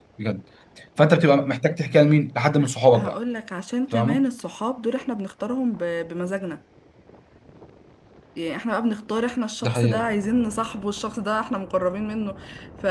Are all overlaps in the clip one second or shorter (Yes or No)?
Yes